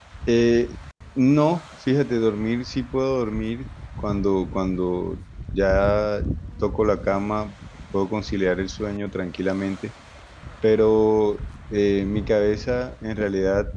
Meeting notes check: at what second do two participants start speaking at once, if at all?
none

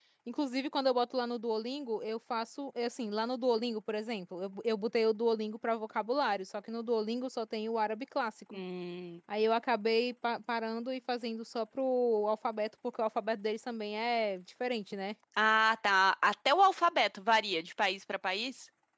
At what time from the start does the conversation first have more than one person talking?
none

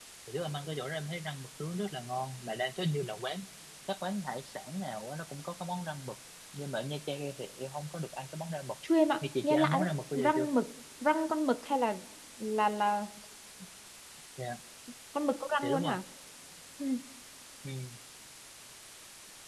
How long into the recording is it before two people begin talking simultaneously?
9 s

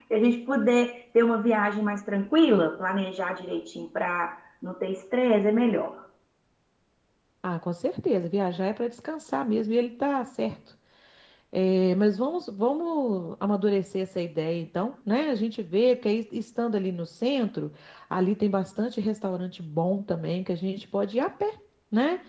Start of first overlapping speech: none

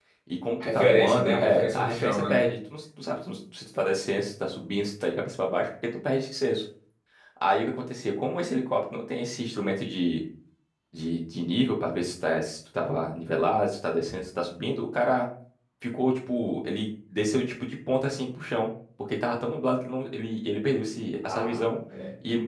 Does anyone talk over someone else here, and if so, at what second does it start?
1 s

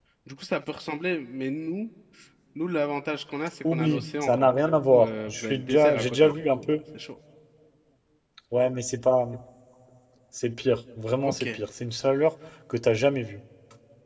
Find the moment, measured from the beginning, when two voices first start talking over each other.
4 s

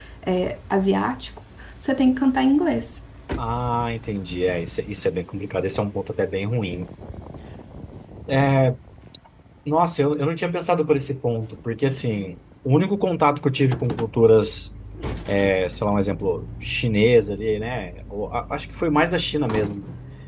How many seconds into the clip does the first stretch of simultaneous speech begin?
none

